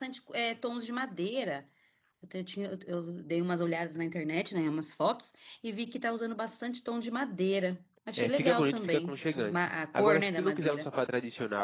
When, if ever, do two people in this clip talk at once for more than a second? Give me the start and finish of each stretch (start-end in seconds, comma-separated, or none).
8.2-10.9